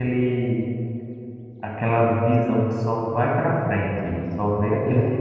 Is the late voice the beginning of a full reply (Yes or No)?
No